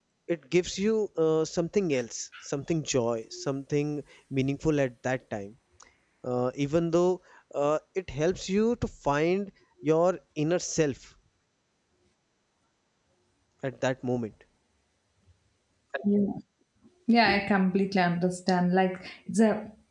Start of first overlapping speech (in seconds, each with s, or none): none